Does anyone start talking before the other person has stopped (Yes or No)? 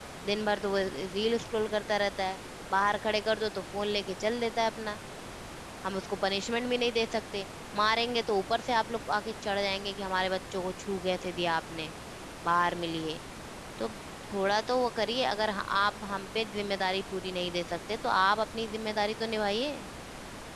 No